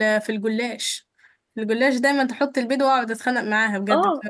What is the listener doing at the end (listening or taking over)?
taking over